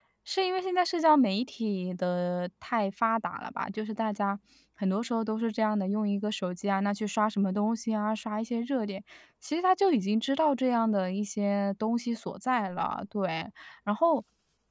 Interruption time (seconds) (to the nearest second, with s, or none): none